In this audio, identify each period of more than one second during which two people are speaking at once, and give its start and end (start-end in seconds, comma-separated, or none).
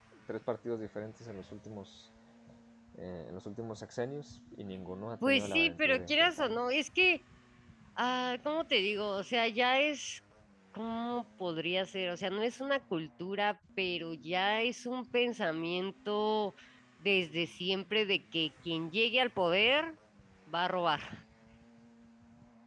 5.3-6.6